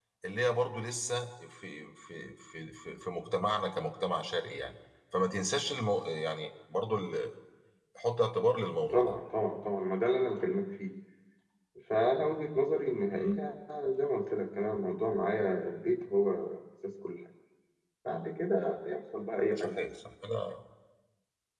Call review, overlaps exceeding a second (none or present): none